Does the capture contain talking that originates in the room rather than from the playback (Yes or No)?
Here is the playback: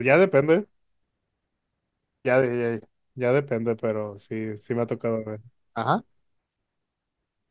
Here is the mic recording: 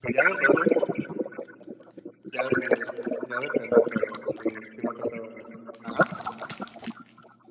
No